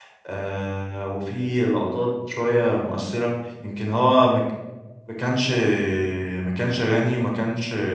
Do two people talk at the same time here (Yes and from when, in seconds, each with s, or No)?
No